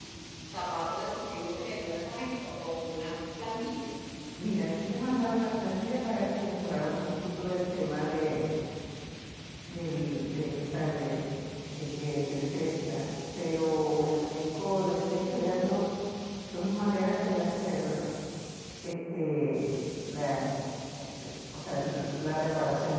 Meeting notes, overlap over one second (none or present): none